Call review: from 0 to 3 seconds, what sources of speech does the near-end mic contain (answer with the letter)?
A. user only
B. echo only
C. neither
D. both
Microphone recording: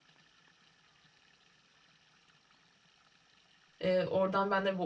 C